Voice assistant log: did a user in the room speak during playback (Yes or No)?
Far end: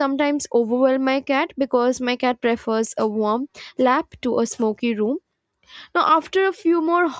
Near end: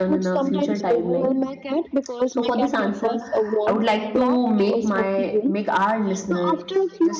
Yes